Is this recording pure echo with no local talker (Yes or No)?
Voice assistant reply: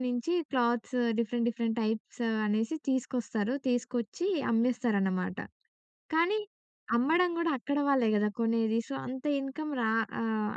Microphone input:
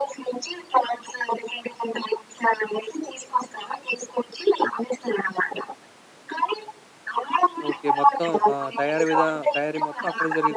No